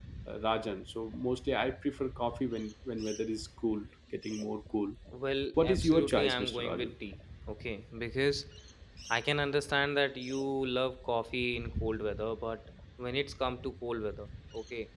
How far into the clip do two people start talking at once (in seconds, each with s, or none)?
5.6 s